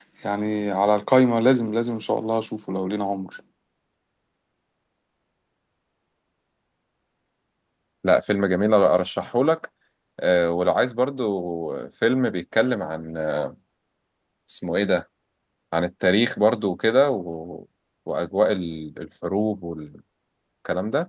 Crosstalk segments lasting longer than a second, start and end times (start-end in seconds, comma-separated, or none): none